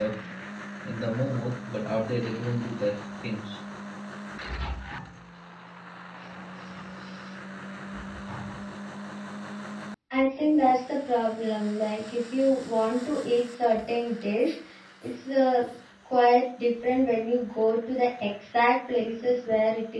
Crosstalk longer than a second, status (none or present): none